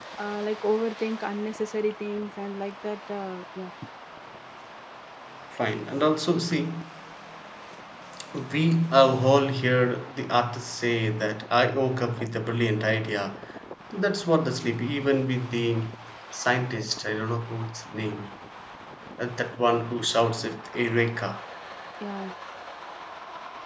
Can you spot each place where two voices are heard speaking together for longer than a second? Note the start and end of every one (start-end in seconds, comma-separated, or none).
none